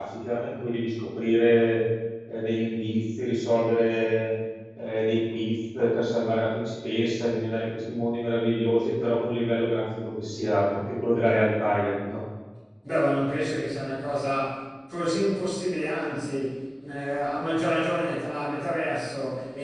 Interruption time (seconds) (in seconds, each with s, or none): none